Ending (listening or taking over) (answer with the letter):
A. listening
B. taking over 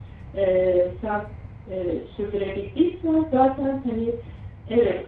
A